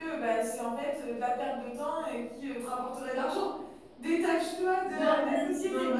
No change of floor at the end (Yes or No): Yes